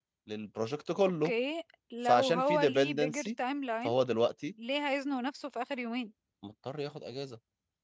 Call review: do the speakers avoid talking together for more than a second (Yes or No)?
No